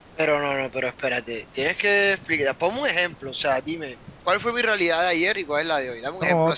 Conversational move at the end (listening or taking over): taking over